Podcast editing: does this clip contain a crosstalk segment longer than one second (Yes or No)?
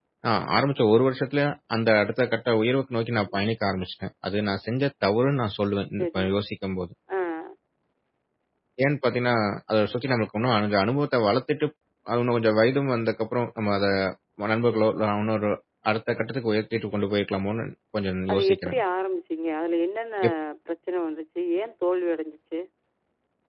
No